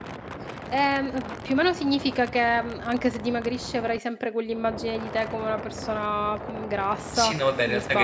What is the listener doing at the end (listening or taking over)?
taking over